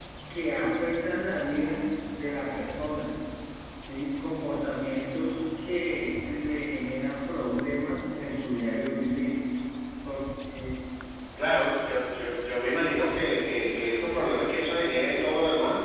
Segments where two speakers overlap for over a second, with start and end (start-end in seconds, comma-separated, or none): none